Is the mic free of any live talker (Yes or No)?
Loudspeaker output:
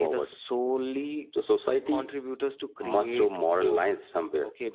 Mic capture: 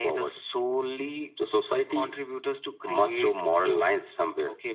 Yes